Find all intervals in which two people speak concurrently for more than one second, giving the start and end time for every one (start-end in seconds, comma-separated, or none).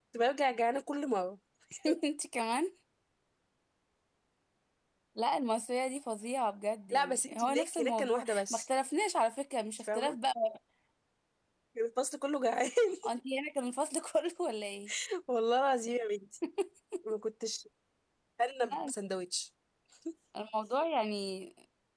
6.9-8.6